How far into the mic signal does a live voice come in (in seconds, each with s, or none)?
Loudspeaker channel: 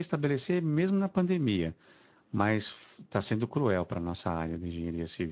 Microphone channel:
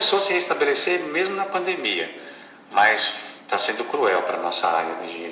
none